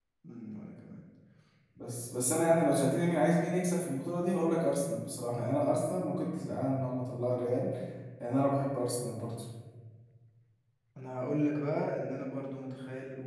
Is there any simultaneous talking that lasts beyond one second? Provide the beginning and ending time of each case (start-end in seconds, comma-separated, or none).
none